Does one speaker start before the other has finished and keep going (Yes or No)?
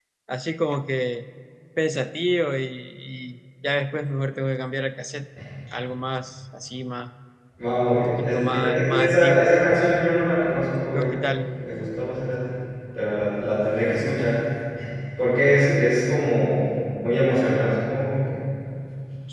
Yes